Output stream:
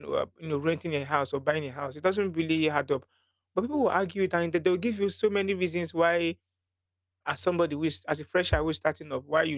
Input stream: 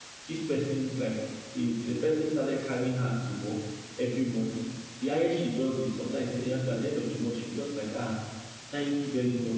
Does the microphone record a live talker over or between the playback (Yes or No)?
Yes